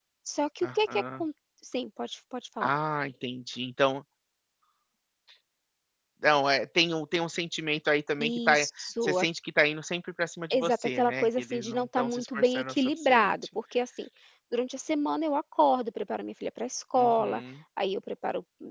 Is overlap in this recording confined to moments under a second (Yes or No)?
No